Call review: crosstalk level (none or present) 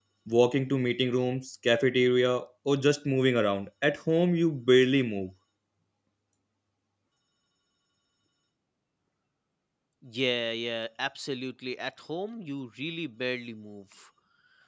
none